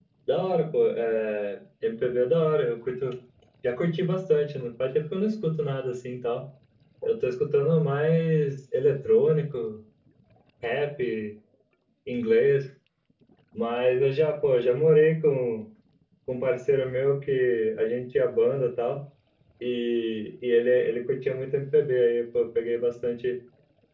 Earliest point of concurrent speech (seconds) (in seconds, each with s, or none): none